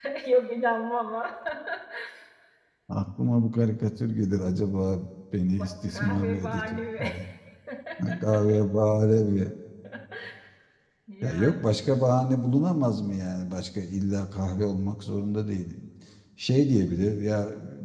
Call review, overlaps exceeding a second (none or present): present